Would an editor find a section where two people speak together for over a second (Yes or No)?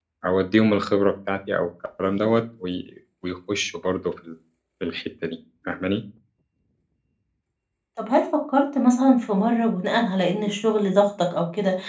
No